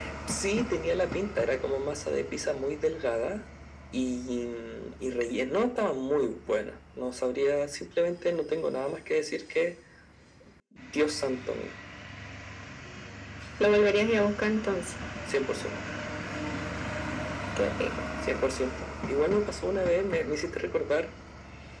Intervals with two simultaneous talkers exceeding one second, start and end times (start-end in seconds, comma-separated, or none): none